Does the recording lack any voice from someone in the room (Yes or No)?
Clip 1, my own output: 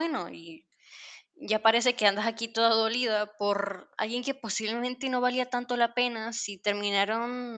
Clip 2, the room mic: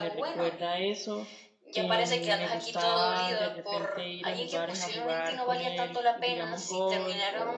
No